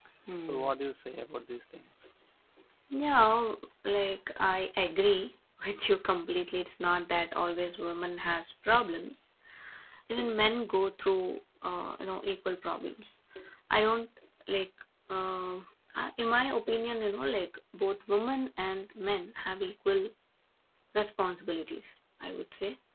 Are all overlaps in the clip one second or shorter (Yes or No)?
Yes